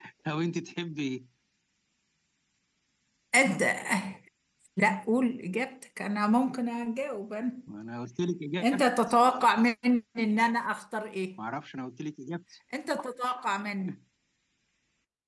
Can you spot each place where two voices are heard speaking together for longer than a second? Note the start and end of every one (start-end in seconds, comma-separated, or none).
none